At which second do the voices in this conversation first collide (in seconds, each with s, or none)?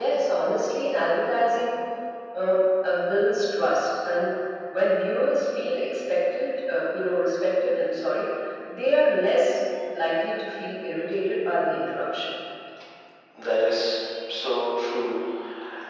none